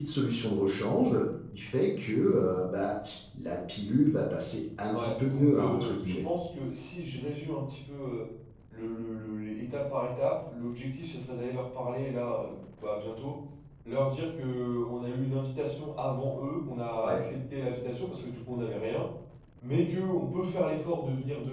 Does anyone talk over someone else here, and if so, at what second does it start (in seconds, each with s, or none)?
4.9 s